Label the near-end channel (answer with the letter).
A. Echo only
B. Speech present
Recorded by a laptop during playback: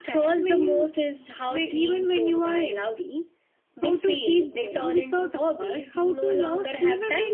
A